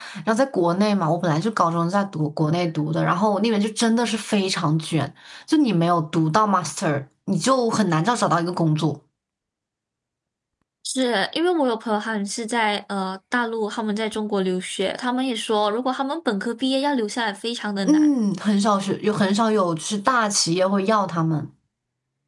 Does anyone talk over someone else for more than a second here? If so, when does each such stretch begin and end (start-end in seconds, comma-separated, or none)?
none